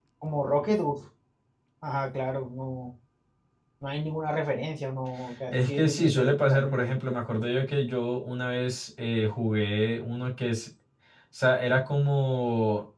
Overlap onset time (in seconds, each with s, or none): 5.5 s